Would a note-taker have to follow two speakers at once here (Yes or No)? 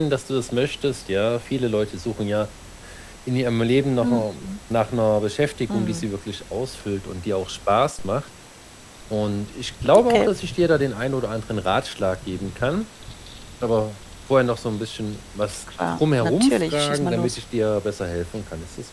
Yes